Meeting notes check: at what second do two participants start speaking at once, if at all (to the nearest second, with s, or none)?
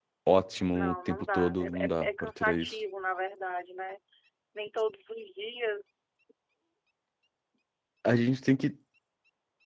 1 s